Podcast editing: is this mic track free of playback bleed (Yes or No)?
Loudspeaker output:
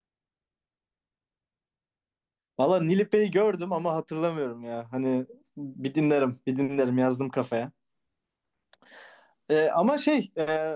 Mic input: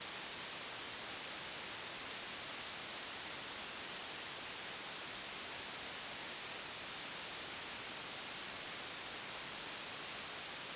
Yes